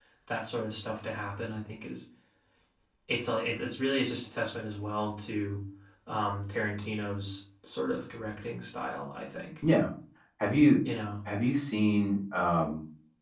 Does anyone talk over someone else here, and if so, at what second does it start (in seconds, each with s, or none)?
none